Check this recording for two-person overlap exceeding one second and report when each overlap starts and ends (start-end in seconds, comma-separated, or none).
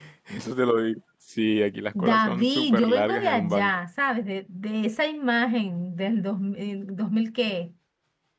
2.0-3.8